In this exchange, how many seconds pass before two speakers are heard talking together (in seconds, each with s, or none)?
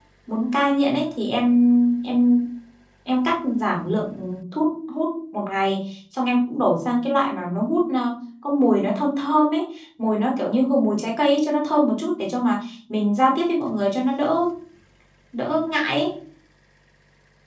none